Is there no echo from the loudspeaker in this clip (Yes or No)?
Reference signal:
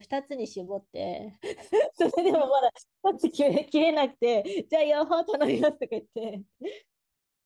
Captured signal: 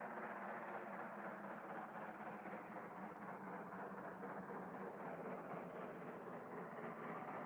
Yes